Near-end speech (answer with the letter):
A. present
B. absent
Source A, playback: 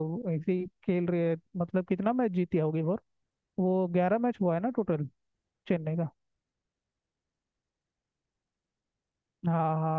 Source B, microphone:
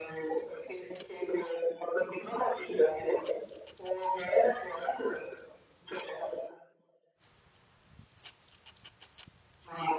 B